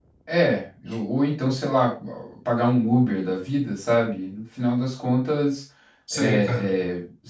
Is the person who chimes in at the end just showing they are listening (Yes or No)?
Yes